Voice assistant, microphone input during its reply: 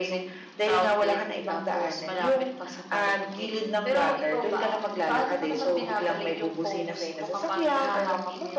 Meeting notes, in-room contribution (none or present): none